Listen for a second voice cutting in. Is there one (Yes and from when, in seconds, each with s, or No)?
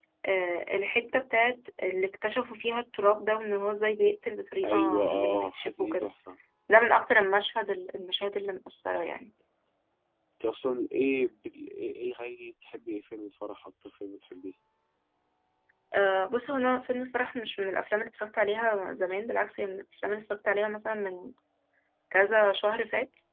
Yes, from 4.6 s